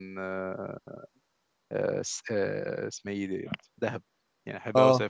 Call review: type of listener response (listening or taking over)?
listening